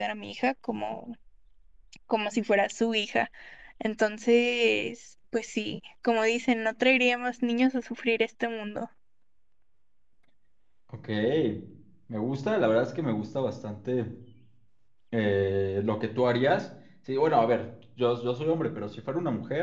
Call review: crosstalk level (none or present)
none